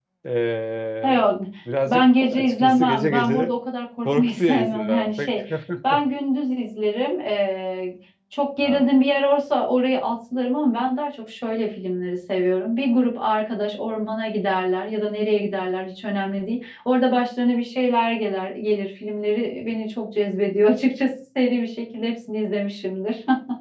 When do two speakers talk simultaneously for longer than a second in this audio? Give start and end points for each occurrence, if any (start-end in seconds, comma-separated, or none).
1.9-3.5, 4.0-5.3